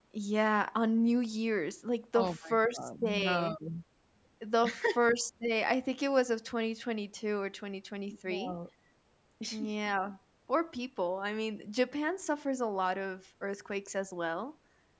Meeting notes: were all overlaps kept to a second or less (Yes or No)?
No